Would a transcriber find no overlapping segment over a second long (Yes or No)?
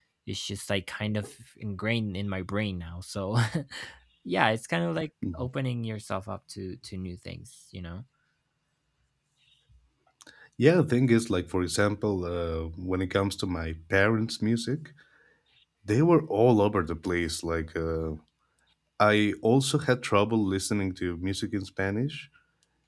Yes